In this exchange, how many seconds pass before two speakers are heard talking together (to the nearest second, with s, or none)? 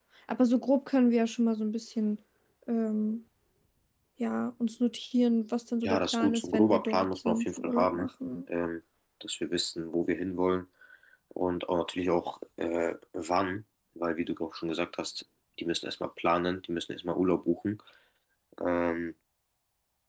6 s